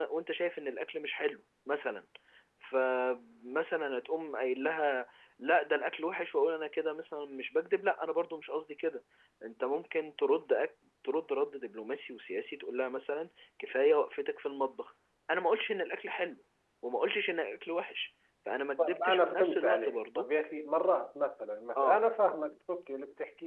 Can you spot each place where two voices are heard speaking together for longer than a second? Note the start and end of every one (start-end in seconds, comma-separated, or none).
18.8-20.3